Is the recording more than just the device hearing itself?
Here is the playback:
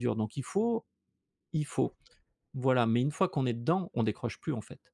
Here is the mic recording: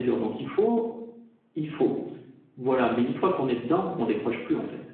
No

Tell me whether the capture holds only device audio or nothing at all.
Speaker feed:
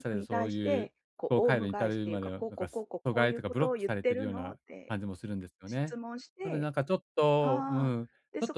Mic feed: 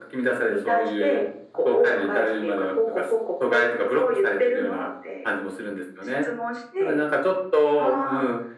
Yes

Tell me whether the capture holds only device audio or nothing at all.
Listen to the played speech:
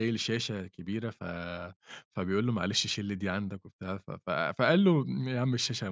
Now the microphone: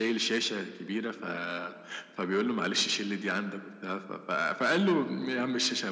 Yes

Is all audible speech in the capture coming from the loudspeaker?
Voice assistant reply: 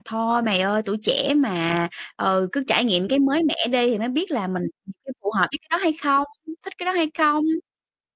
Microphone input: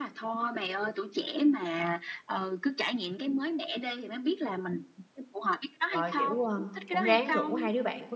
No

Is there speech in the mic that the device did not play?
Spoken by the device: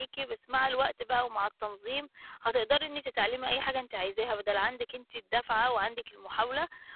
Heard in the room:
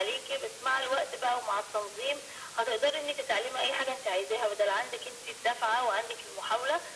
No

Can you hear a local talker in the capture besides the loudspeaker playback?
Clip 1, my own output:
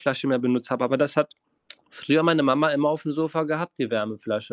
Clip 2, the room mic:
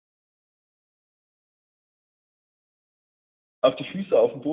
Yes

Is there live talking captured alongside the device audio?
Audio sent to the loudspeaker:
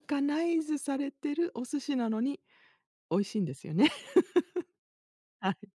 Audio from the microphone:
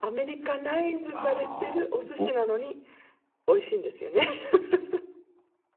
Yes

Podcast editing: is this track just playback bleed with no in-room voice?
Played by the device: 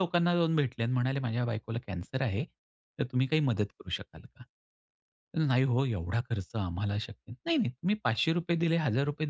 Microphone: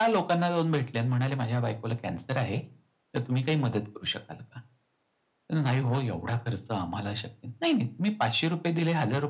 Yes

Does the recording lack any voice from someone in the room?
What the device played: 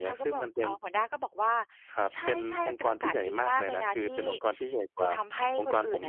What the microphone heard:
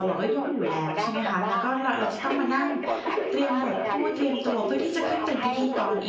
No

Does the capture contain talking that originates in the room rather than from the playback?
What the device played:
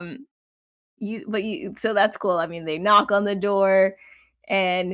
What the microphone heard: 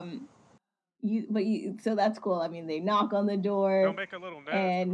Yes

